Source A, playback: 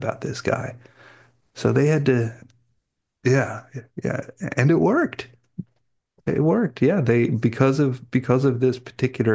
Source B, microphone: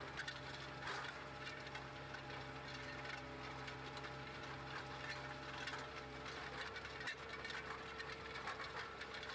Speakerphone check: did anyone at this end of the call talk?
No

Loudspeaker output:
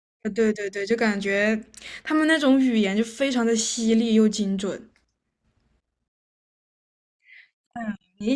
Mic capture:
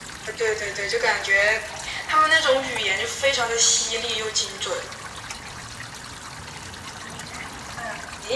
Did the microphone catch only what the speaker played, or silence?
Yes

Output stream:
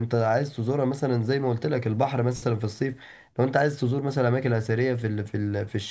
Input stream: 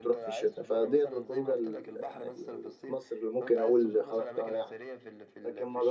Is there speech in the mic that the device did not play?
Yes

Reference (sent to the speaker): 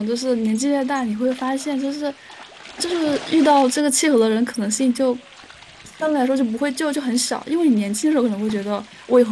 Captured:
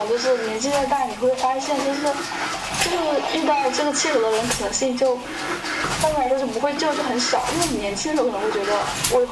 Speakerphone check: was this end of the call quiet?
Yes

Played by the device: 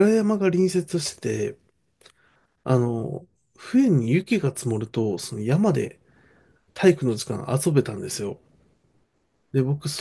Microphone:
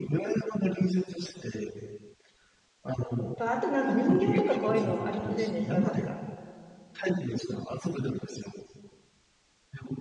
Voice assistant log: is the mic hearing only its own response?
No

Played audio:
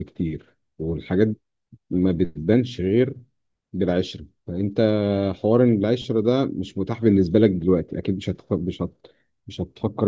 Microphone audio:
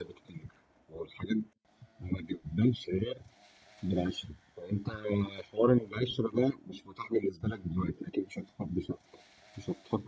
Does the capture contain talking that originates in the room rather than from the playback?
No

